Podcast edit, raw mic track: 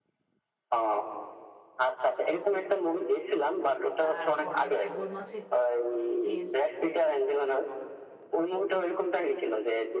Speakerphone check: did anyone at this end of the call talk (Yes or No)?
Yes